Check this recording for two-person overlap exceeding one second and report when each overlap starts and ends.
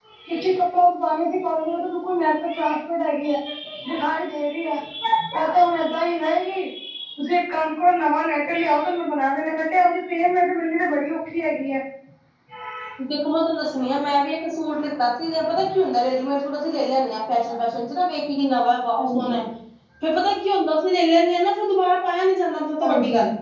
none

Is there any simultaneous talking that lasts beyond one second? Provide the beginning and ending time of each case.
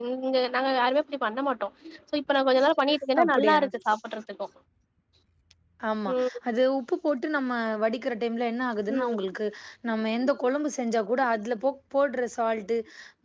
none

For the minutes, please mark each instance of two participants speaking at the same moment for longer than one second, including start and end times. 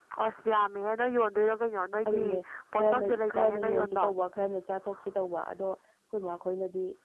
2.7-4.0

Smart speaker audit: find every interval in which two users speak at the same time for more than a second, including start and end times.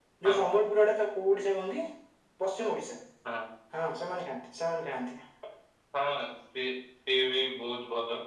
none

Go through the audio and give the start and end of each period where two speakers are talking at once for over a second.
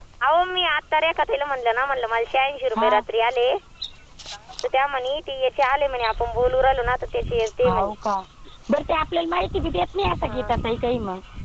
none

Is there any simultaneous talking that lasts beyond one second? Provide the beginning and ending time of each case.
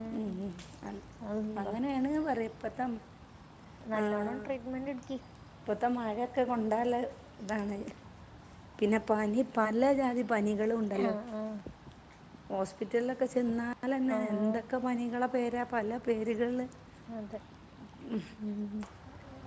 none

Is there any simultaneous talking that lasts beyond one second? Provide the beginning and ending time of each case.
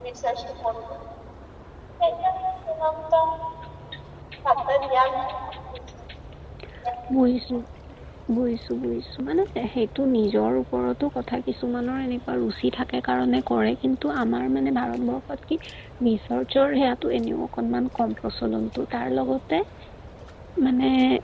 none

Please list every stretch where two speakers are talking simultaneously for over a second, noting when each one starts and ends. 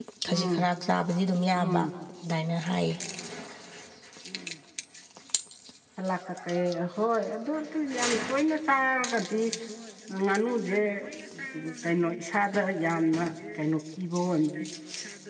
none

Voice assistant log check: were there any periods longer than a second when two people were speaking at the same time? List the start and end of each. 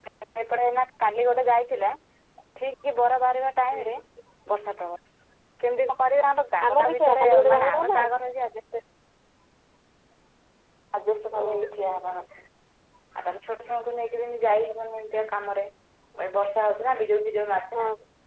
6.7-8.0

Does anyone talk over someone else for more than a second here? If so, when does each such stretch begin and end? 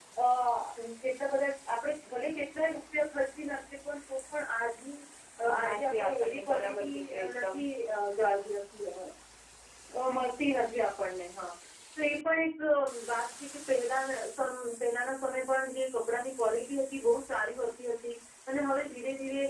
5.7-7.6

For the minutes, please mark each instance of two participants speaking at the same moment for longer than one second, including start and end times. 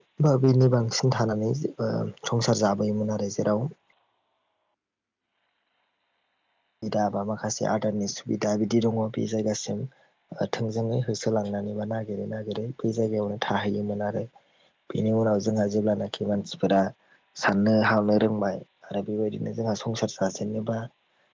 none

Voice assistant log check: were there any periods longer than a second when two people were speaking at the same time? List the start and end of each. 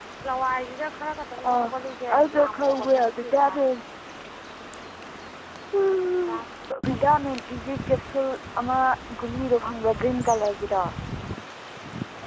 2.2-3.5

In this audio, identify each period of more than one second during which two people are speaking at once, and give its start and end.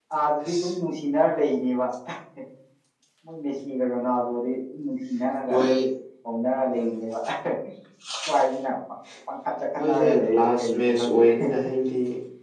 9.7-11.2

